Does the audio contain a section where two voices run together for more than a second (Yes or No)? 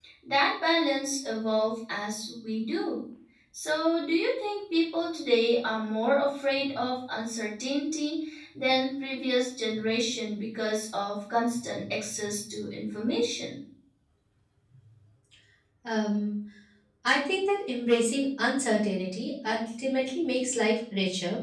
No